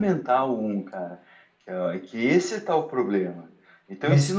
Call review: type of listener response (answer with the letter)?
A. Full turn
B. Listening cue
B